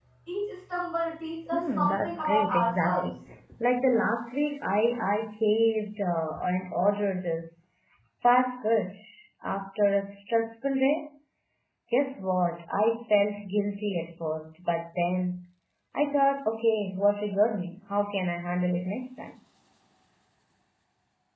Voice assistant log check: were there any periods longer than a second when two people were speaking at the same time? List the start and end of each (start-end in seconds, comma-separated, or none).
1.5-3.1